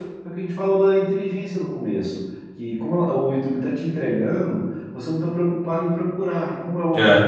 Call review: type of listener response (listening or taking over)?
listening